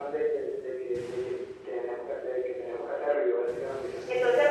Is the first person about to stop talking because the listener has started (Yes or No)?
Yes